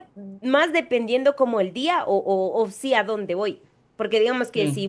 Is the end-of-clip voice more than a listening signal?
No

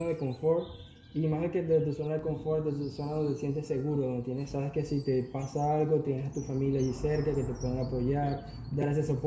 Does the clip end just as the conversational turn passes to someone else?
No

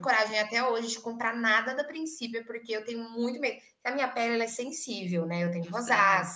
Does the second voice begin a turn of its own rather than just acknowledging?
No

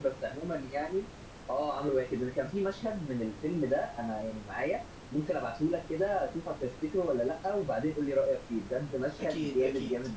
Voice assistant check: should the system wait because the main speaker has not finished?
No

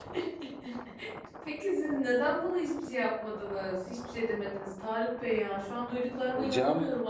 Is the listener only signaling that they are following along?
Yes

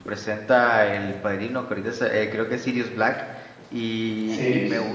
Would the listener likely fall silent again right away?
Yes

